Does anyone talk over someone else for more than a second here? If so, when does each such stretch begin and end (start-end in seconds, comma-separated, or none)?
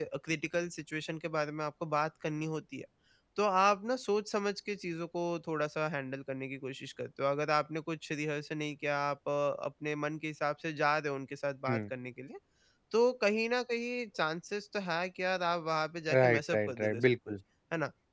16.1-17.3